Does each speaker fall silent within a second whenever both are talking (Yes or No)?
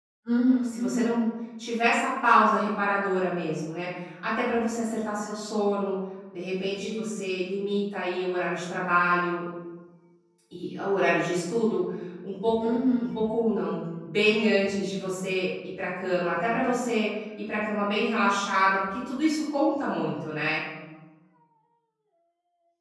Yes